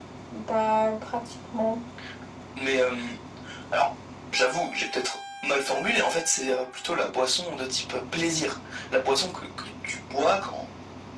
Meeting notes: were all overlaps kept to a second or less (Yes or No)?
Yes